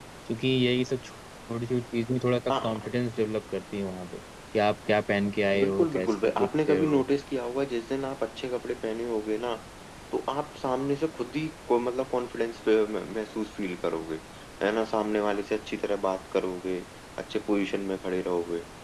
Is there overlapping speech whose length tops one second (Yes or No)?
Yes